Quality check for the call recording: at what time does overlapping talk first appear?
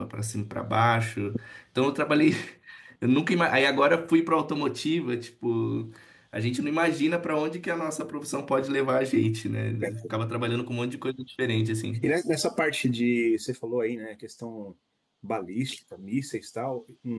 none

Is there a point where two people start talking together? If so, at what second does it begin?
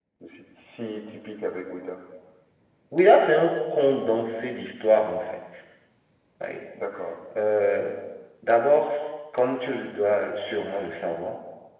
none

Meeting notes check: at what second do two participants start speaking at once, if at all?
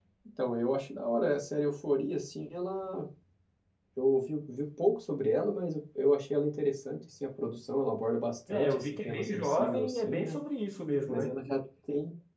8.5 s

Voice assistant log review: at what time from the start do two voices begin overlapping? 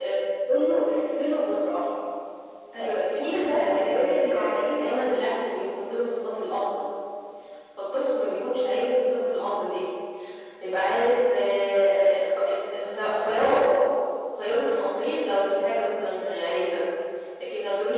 2.8 s

